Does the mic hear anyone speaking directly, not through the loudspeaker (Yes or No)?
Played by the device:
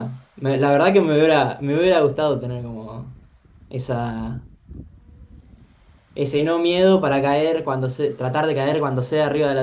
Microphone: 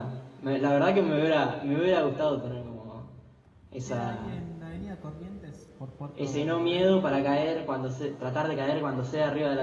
Yes